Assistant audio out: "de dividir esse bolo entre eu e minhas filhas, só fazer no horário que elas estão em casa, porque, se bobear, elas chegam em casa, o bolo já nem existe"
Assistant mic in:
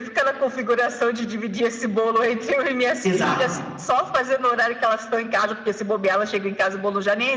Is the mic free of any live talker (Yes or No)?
No